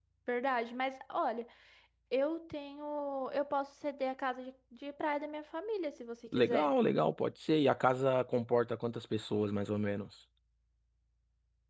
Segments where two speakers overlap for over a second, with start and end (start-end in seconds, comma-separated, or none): none